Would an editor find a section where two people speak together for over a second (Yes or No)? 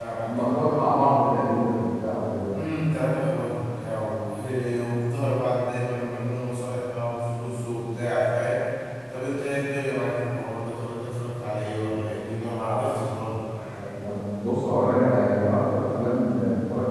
No